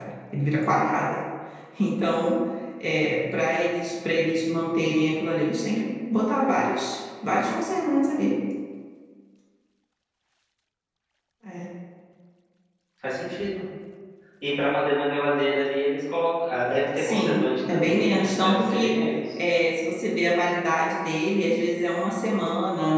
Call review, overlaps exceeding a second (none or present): present